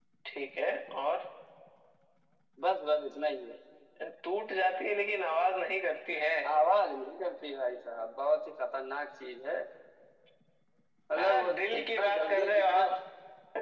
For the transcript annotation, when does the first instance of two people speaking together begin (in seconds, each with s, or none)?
11.2 s